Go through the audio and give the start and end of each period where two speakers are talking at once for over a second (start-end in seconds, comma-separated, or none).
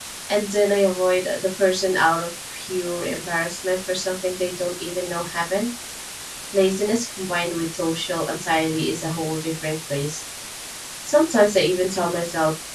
none